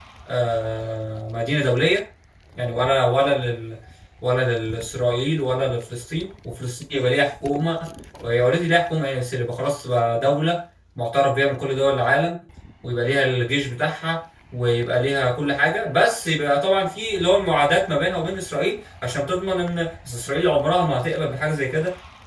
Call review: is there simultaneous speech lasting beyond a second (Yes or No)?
No